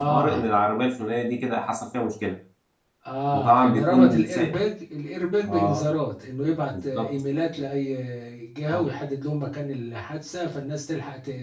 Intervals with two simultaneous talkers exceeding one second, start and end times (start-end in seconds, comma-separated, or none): 3.3-4.6